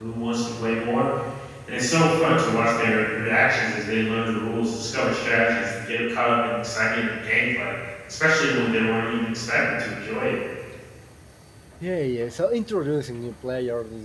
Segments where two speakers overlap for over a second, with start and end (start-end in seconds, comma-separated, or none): none